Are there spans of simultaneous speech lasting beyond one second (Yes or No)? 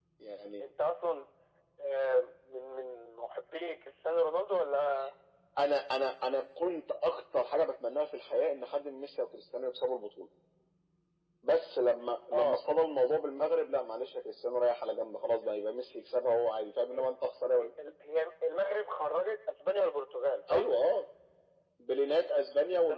No